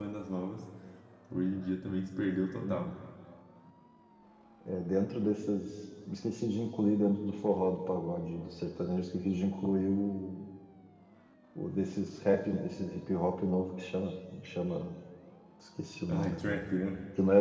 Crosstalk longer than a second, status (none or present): none